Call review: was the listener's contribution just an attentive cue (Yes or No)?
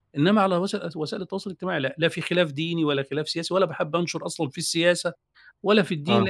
Yes